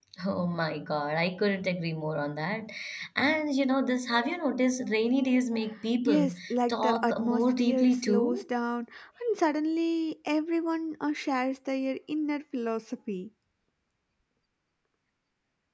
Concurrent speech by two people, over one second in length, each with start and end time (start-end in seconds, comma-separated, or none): 6.0-8.4